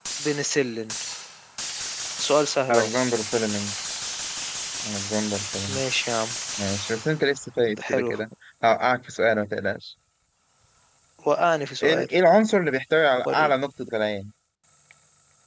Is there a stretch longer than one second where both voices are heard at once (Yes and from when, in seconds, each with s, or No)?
No